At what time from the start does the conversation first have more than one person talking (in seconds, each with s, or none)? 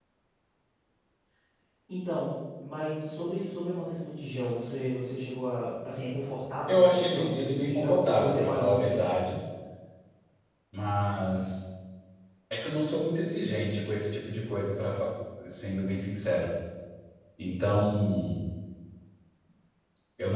6.7 s